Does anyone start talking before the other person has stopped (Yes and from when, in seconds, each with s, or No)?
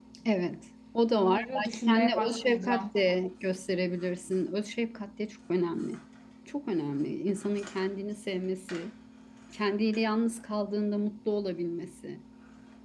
Yes, from 1.1 s